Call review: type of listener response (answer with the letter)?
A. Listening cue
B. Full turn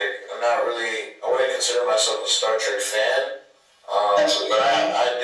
A